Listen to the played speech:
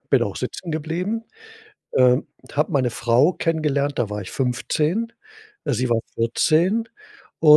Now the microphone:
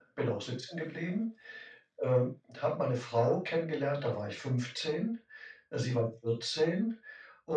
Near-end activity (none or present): none